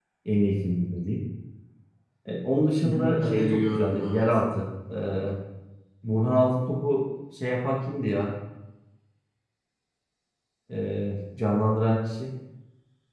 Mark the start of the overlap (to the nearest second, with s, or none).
3 s